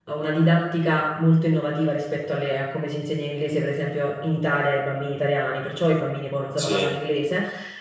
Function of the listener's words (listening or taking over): listening